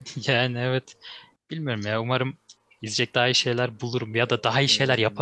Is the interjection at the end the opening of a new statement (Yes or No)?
Yes